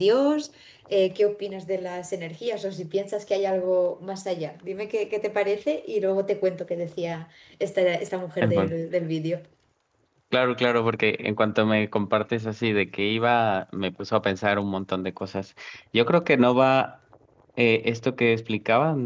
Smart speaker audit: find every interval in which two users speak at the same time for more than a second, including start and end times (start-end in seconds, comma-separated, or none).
none